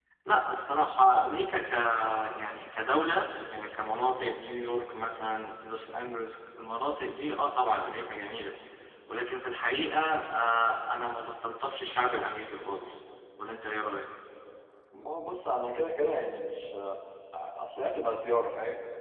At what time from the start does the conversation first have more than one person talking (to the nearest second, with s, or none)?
none